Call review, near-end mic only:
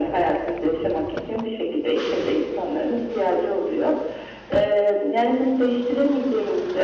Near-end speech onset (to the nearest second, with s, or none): none